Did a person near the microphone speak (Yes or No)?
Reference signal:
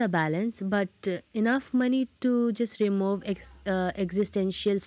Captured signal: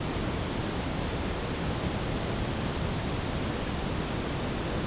No